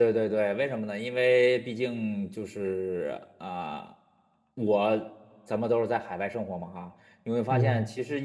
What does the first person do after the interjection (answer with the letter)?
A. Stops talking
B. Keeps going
B